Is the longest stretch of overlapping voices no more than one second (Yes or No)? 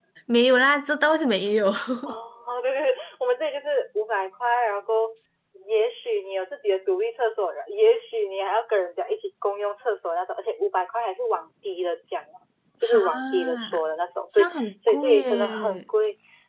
No